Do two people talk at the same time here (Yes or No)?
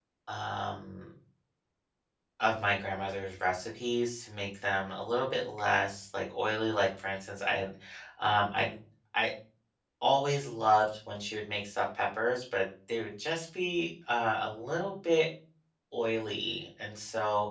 No